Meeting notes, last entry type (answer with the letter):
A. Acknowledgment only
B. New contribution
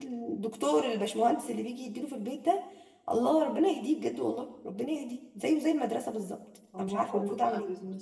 B